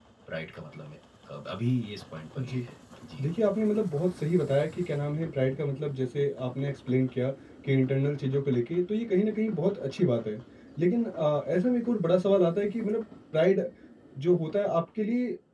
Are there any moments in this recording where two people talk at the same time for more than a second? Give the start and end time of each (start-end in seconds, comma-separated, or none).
none